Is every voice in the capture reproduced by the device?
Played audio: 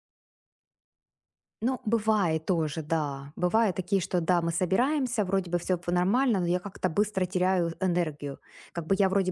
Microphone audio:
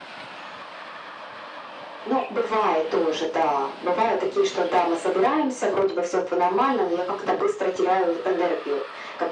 Yes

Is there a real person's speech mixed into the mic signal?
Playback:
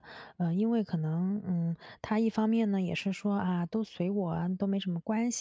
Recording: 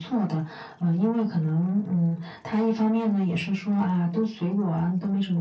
No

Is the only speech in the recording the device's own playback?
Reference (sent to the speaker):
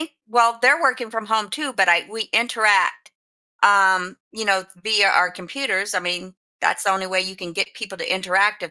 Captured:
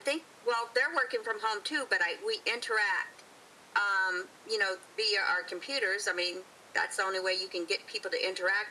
Yes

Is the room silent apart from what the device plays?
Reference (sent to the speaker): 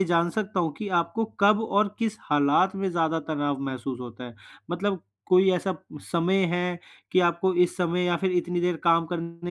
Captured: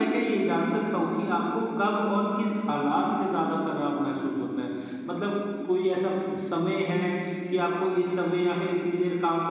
Yes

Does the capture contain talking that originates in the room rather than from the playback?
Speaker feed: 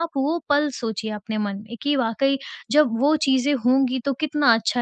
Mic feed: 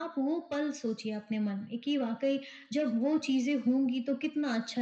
No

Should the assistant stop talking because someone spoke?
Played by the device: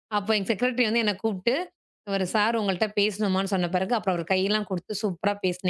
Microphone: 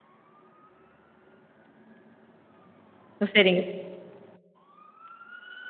Yes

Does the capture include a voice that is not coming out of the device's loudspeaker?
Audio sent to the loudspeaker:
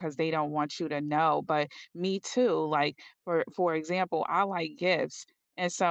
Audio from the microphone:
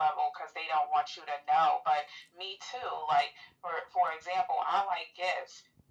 No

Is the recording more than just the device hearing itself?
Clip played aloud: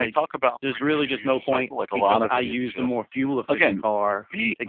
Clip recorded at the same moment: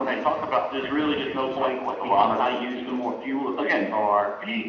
No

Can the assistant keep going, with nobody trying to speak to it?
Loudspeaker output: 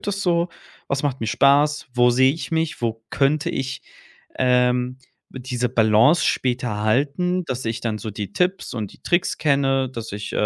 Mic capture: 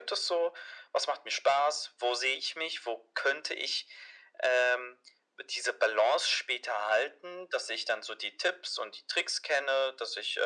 Yes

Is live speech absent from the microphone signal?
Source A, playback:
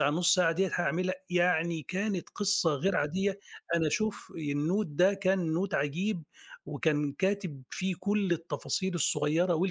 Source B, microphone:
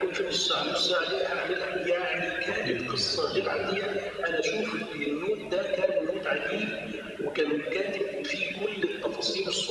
No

